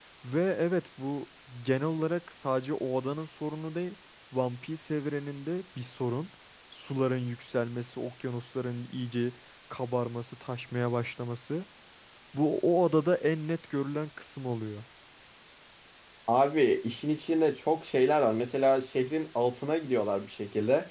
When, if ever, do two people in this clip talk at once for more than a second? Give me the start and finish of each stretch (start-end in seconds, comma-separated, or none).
none